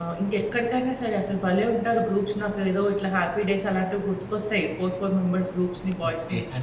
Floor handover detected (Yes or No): Yes